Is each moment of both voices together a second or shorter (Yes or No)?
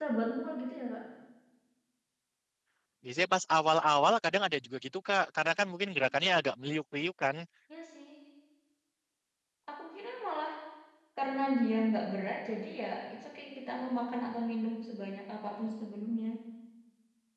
Yes